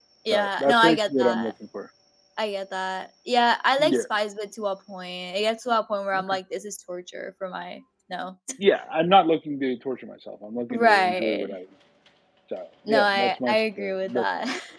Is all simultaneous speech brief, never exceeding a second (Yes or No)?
No